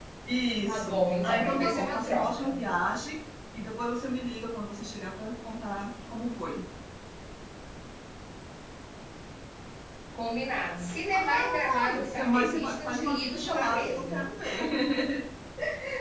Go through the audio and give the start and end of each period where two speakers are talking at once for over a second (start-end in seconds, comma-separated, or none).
0.7-2.6, 11.1-14.3